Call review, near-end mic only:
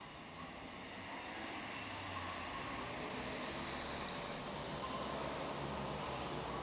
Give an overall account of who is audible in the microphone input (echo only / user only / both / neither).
neither